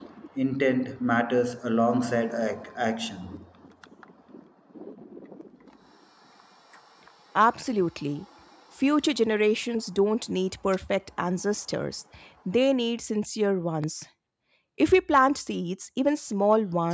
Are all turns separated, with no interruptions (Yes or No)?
Yes